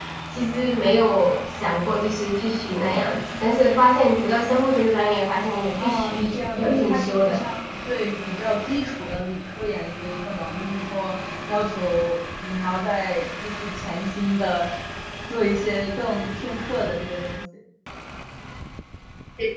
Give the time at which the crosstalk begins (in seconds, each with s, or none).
5.8 s